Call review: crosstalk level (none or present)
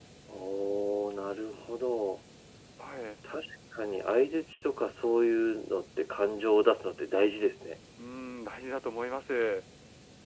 none